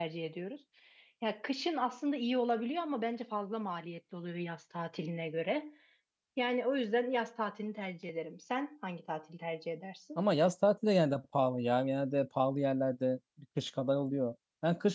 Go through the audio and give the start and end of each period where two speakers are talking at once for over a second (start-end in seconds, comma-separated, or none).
none